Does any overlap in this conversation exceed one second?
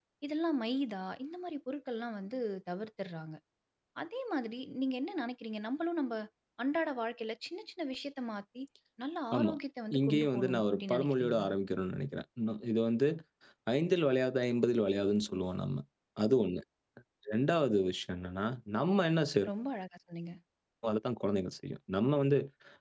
Yes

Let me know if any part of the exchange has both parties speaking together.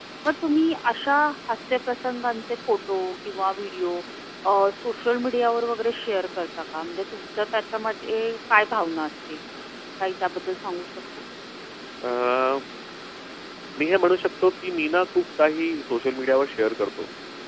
No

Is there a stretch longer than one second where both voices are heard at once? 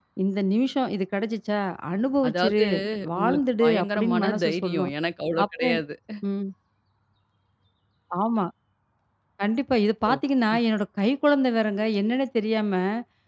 Yes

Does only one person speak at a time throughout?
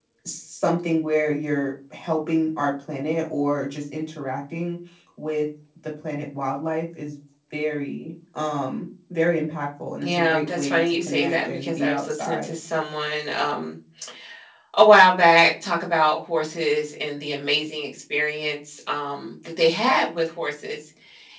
No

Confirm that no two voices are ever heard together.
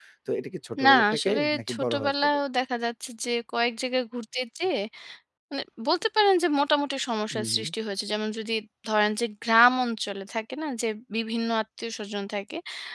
No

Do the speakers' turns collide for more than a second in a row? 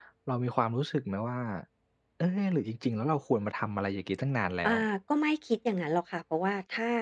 No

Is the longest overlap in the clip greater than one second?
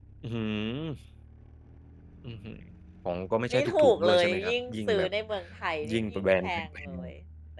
Yes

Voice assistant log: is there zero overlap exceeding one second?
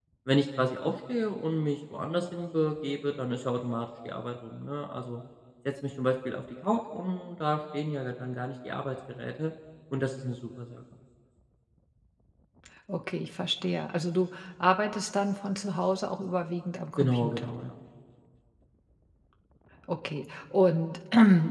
Yes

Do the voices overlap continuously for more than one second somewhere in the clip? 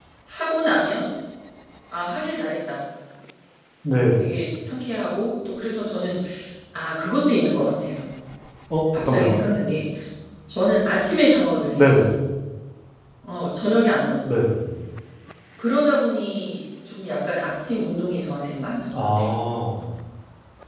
No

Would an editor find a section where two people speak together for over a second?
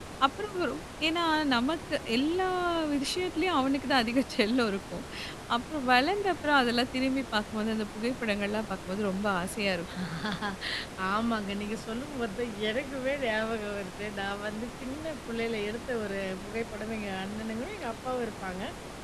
No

